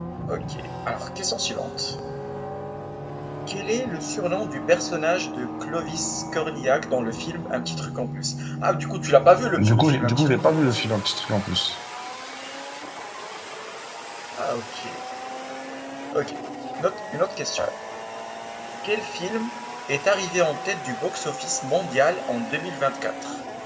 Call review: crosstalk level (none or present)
present